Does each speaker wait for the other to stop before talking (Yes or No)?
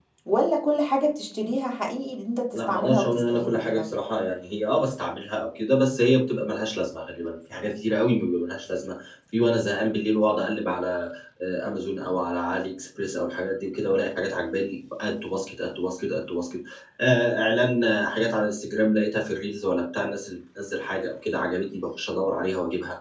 No